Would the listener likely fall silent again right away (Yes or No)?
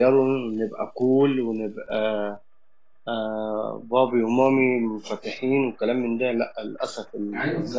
No